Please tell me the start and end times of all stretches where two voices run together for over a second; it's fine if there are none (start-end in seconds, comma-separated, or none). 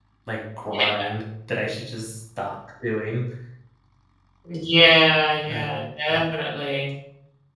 none